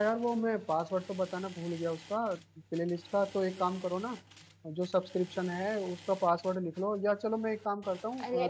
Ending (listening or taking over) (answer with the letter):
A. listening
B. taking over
B